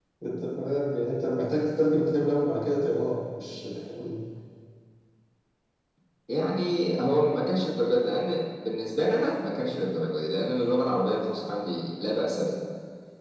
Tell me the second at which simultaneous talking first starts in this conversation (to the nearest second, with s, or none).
none